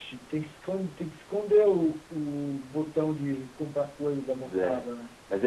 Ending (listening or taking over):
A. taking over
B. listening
A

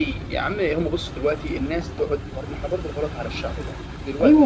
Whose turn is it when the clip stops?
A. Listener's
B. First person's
A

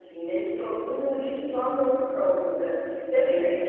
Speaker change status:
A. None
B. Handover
A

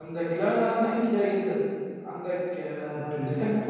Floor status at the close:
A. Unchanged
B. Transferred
A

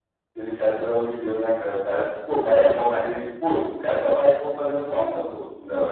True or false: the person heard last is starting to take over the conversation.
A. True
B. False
A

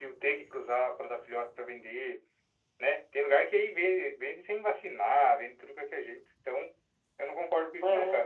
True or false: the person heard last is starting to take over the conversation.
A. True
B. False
A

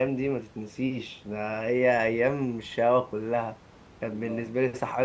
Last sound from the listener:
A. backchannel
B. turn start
A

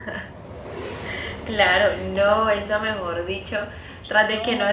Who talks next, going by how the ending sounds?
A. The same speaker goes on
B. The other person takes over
A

